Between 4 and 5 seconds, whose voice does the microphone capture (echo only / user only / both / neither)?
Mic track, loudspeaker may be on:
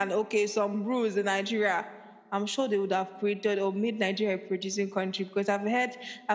echo only